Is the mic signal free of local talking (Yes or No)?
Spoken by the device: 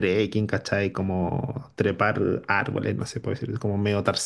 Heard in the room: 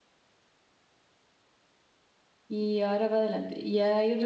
No